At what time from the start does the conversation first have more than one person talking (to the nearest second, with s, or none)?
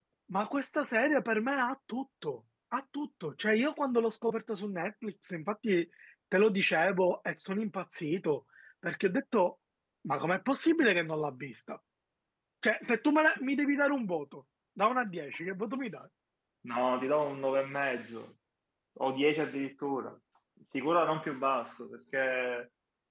none